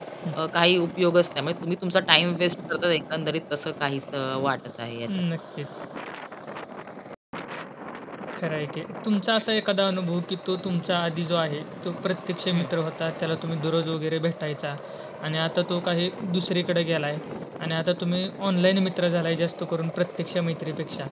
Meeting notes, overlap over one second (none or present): none